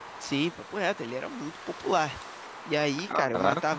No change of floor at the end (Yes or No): Yes